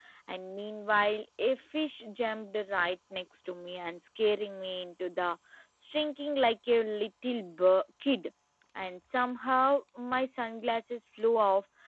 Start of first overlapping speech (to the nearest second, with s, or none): none